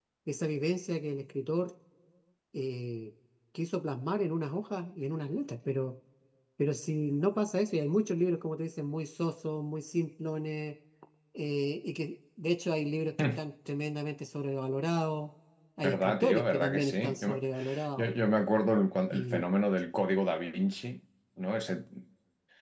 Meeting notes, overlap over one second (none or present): present